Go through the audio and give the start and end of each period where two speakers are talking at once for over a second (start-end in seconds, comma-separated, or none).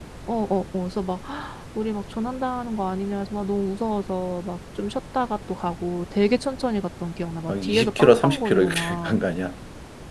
7.5-9.2